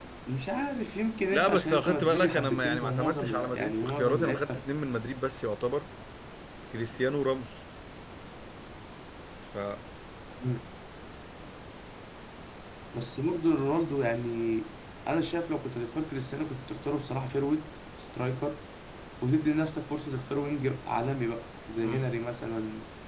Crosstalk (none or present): present